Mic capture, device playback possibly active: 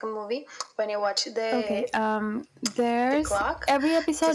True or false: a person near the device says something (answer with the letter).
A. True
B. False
A